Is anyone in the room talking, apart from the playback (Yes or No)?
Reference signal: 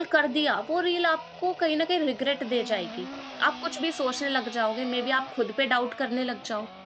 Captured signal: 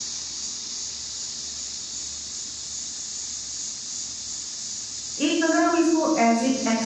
Yes